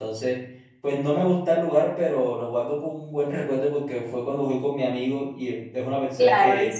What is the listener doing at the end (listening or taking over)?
taking over